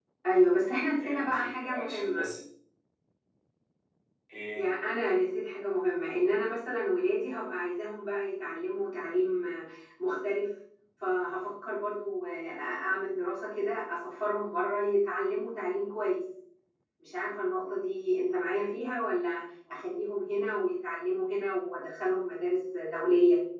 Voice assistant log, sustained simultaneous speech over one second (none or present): present